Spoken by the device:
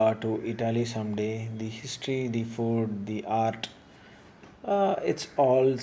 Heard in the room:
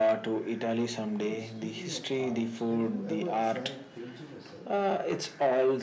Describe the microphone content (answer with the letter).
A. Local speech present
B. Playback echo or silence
A